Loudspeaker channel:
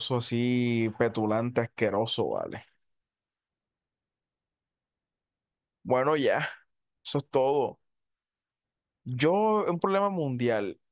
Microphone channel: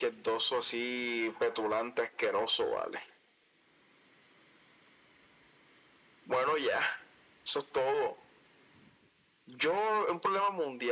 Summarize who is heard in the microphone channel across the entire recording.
echo only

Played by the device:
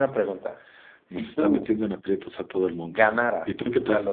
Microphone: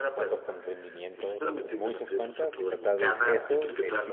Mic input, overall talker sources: both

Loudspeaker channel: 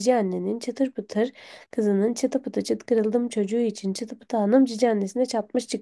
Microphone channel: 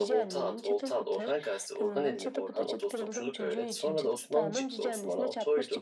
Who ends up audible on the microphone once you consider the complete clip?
both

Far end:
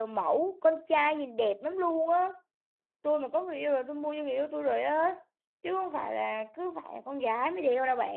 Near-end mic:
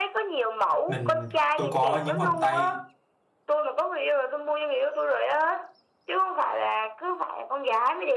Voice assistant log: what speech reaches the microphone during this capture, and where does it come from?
both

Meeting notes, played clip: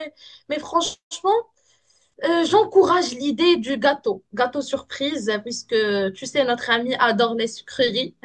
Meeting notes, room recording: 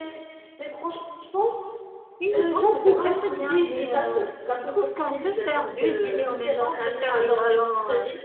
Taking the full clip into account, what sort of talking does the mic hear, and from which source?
both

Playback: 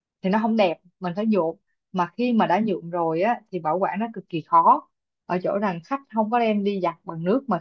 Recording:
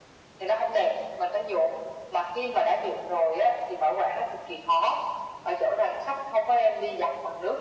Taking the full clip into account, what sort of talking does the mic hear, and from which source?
echo only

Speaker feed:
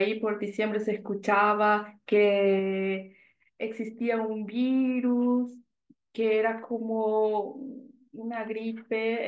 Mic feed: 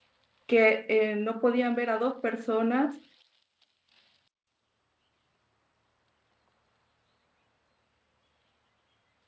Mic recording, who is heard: user only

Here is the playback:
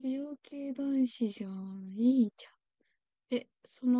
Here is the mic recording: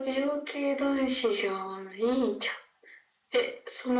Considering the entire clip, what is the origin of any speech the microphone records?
echo only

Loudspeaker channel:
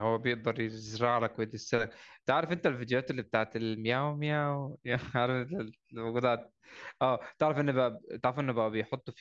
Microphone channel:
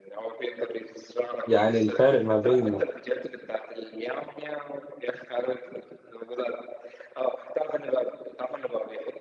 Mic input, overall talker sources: both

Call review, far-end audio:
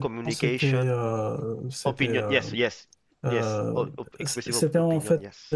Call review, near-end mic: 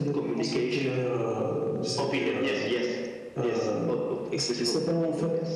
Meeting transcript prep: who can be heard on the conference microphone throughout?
echo only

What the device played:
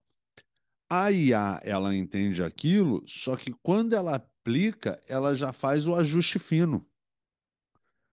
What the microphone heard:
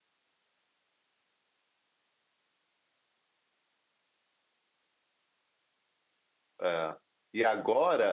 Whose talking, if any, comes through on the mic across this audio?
user only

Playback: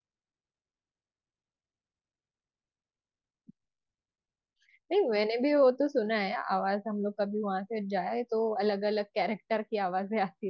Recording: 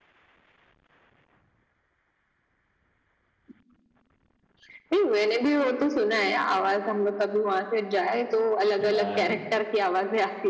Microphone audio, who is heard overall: both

